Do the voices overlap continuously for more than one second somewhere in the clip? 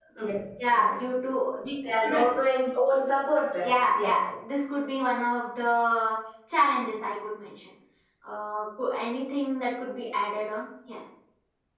No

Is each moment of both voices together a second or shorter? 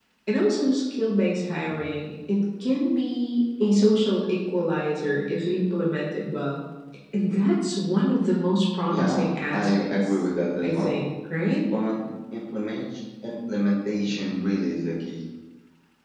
No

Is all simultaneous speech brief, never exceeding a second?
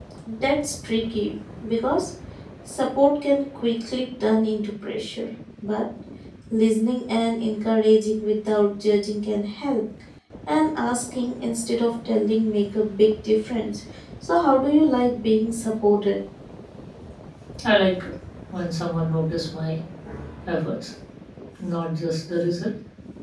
Yes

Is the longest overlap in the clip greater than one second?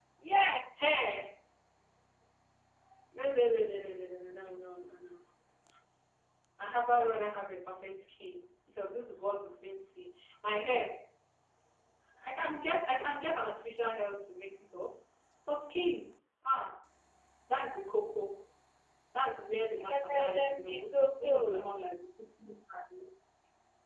Yes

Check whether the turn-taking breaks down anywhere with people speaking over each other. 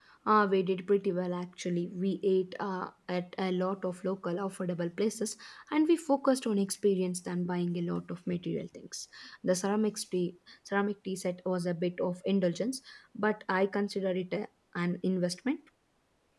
No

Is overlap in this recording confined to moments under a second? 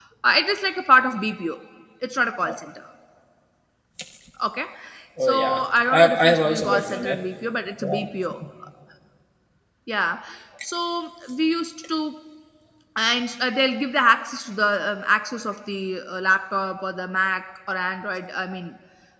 No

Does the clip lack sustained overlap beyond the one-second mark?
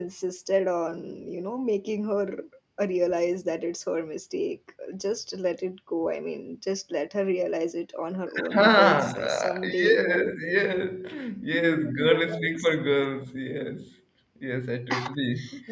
No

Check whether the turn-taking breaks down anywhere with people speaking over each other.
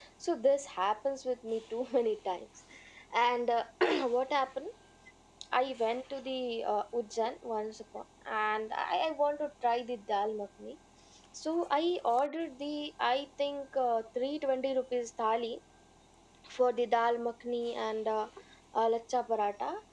No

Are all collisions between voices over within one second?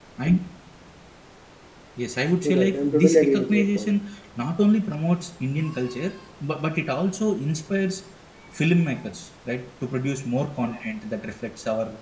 No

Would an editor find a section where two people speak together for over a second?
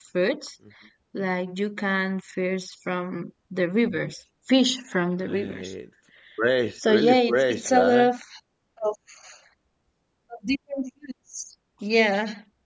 Yes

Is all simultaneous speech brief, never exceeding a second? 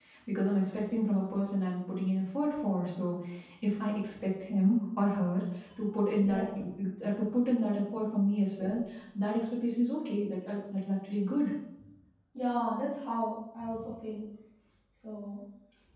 Yes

